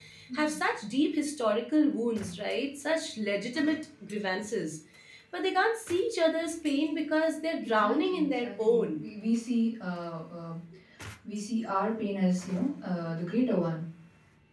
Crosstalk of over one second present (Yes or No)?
Yes